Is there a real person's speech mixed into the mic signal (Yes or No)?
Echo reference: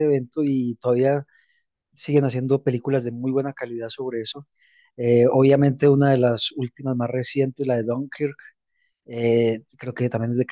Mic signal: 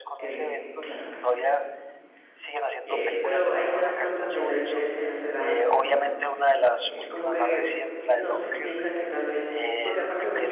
Yes